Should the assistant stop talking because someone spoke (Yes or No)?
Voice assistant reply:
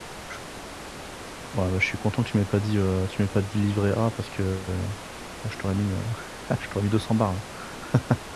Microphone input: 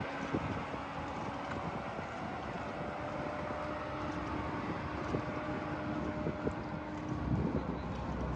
No